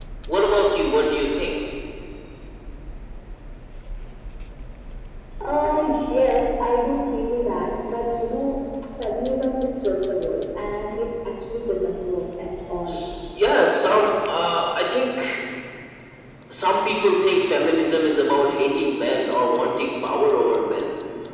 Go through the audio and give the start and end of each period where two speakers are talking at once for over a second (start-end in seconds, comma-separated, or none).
none